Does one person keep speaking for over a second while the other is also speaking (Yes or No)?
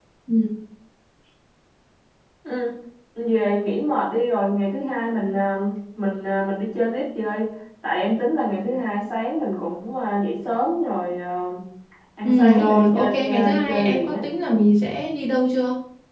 Yes